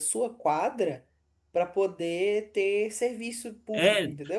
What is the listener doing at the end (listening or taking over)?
taking over